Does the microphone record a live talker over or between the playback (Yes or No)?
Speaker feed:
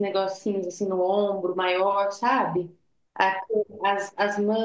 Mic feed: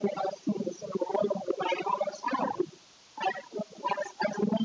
No